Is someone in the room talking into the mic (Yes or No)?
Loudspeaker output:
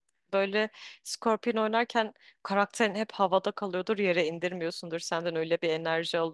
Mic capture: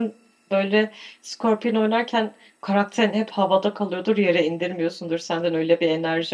No